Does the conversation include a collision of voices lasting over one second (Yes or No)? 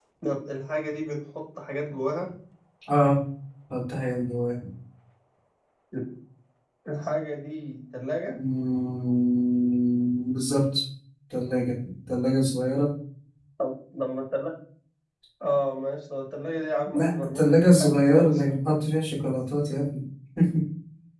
Yes